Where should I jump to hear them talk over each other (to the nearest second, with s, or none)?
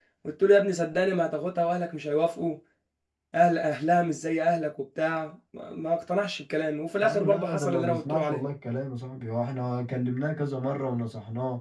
7 s